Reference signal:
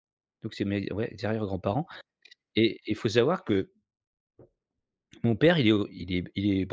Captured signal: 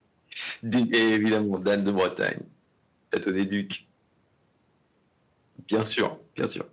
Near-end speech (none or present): present